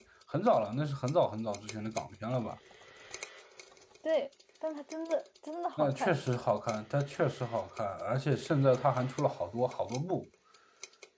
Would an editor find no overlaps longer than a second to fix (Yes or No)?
Yes